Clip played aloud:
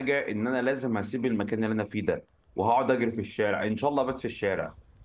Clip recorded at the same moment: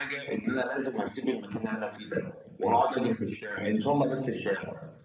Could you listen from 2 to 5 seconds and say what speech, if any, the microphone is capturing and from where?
echo only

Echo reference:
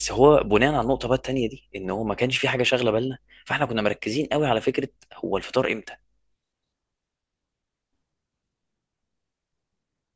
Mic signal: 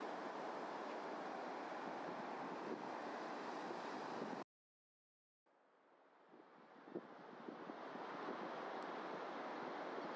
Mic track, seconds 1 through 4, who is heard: neither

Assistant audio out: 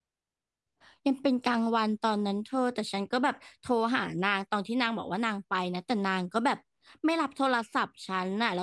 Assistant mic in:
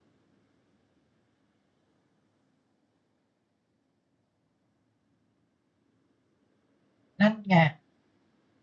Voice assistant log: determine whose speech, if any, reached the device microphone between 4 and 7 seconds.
neither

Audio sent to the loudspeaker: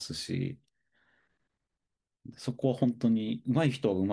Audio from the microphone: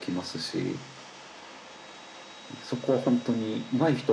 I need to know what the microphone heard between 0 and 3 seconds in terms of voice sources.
echo only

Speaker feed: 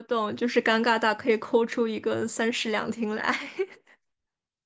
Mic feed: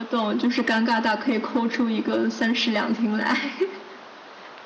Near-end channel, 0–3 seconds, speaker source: echo only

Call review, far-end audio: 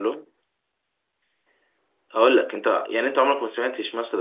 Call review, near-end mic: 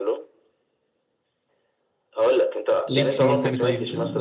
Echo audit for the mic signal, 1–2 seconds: neither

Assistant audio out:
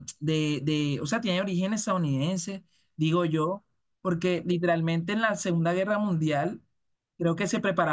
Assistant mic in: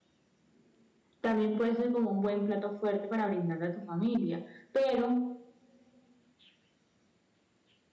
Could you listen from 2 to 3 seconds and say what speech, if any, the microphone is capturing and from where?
user only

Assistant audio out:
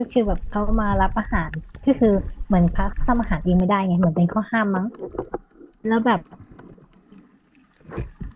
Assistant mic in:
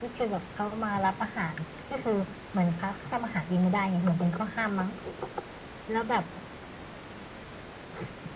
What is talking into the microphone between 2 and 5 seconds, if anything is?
echo only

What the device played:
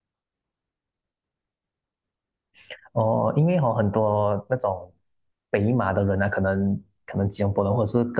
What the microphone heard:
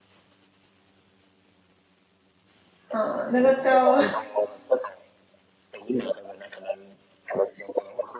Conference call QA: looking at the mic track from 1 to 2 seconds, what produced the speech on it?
neither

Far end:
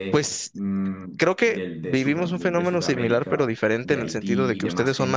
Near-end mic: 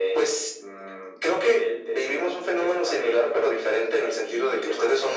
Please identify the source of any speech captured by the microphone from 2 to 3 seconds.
echo only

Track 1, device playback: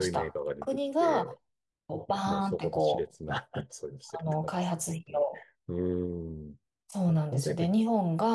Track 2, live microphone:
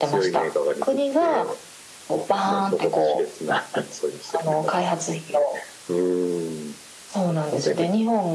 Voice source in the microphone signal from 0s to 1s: echo only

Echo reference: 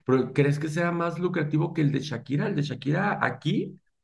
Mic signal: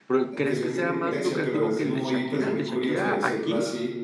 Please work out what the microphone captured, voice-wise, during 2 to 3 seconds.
both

